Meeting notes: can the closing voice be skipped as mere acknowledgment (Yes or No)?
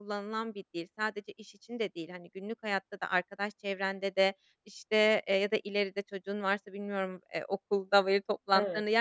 Yes